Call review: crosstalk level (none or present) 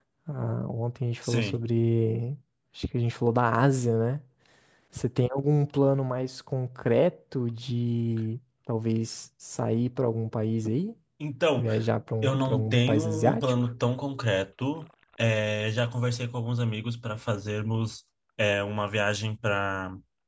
present